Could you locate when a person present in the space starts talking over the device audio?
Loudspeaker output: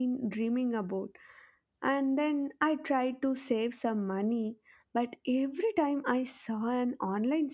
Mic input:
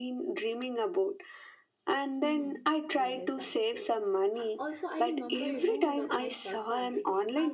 2.2 s

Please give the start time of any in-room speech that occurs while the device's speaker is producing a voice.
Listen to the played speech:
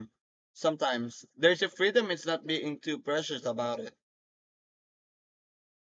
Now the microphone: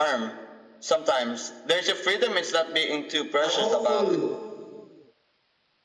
3.4 s

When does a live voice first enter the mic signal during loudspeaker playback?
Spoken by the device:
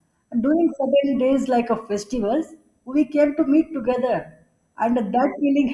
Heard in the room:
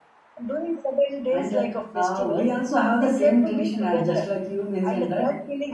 1.3 s

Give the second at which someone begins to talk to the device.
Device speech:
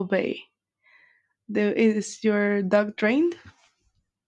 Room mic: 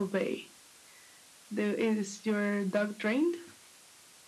none

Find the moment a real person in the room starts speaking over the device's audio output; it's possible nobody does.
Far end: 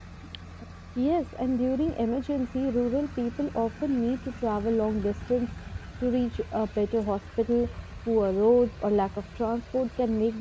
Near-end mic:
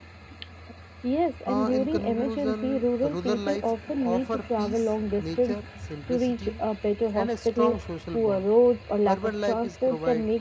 1.5 s

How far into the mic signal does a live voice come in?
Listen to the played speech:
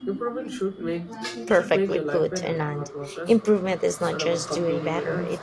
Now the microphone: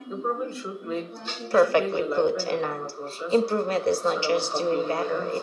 none

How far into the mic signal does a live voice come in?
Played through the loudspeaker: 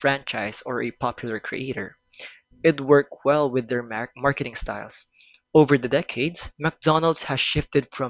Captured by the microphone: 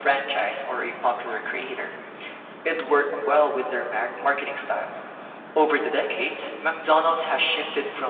none

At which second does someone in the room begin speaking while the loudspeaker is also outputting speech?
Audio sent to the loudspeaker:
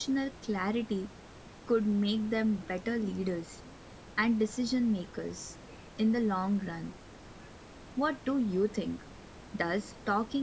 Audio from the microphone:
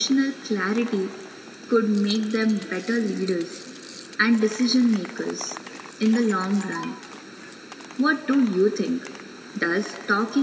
none

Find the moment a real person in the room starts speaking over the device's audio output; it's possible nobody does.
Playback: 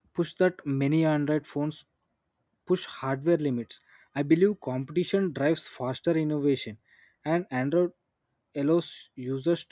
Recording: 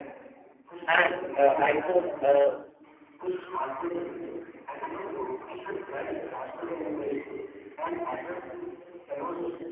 0.8 s

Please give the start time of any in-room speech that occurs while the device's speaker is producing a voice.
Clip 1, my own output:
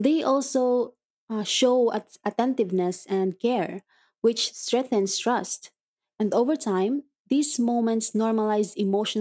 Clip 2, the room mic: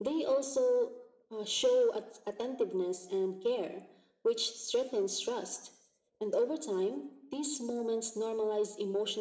none

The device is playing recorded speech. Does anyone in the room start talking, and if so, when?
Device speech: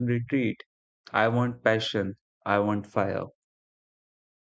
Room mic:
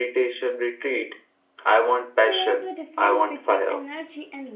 2.2 s

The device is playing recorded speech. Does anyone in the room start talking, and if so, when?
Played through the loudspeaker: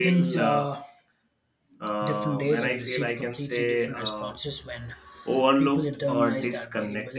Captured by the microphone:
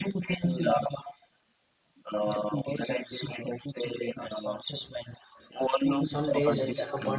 6.0 s

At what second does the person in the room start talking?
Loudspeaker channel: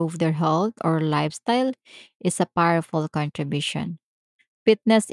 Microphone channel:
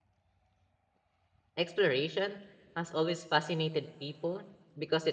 1.6 s

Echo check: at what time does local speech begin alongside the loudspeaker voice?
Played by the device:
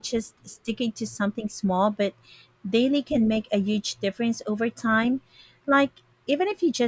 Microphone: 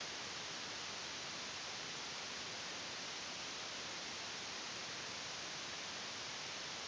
none

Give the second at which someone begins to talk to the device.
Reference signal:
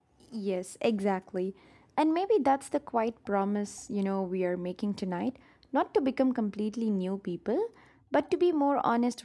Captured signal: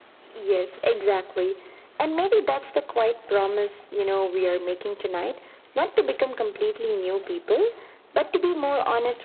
none

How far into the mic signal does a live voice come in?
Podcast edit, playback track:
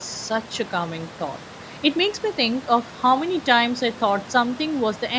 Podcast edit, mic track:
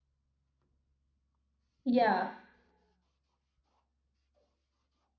1.8 s

